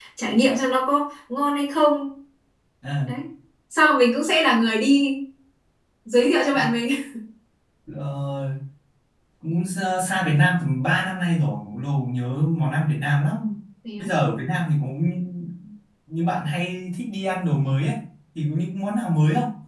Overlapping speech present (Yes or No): No